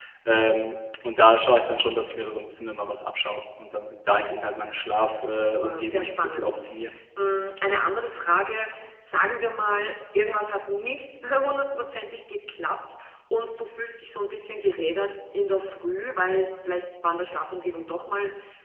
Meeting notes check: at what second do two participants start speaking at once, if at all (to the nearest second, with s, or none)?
5 s